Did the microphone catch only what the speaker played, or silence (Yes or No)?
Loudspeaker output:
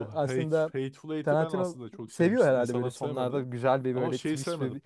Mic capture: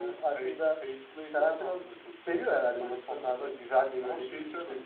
Yes